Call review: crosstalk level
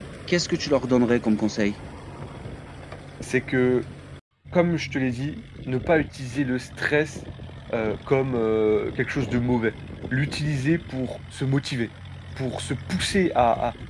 none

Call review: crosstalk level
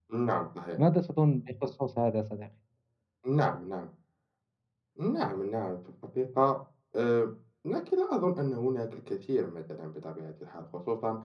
none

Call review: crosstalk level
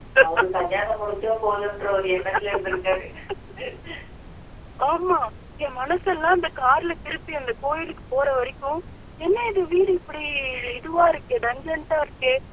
none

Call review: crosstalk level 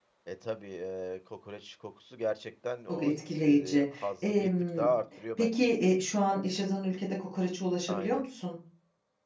present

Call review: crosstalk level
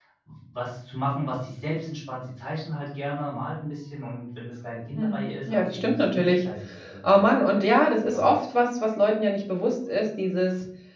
present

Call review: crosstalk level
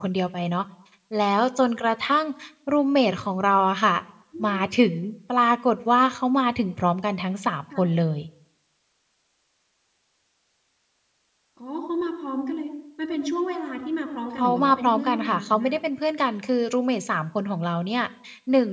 present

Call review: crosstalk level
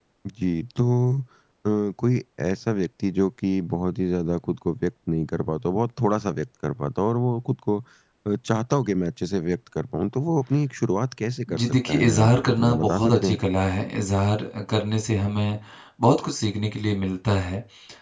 present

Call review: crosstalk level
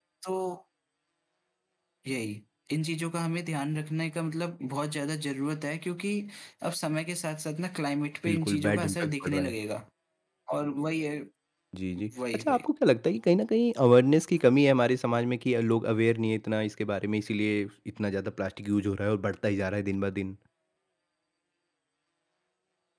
present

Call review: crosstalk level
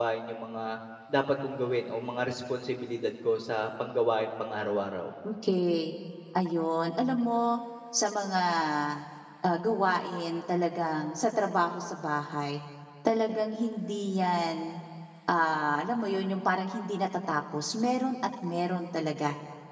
none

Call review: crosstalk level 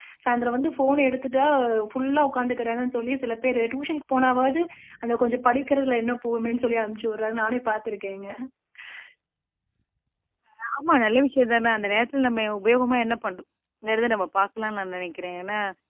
none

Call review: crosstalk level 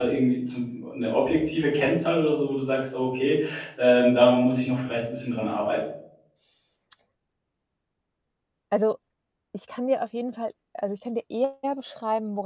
none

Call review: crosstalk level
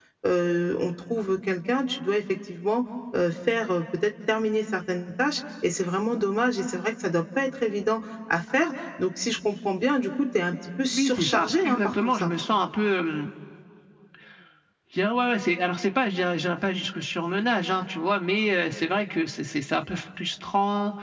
present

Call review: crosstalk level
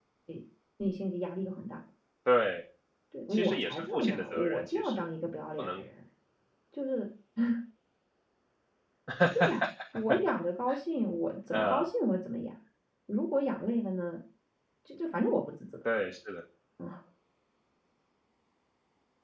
present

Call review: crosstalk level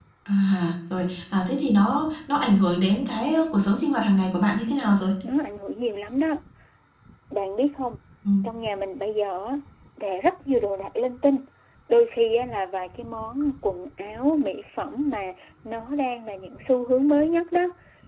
none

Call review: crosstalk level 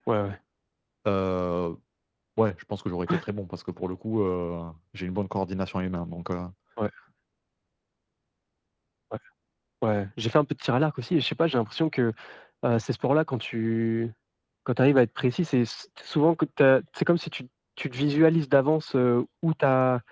none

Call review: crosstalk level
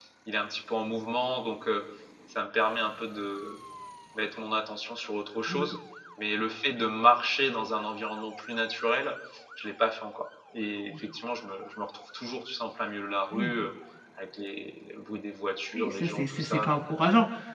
present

